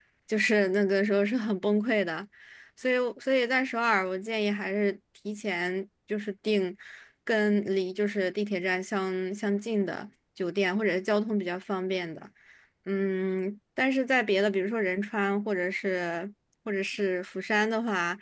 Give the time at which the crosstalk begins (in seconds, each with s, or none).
none